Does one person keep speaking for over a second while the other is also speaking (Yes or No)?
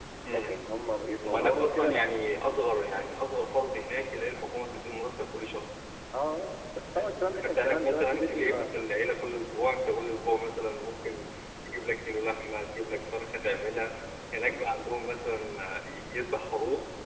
Yes